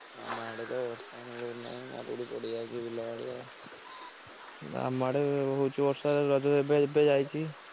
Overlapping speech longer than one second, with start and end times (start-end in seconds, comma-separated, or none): none